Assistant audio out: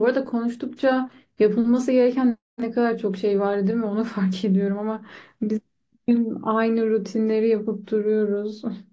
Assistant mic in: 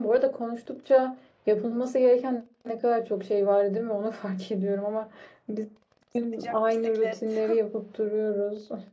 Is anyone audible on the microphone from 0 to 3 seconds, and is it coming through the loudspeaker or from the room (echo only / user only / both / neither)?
echo only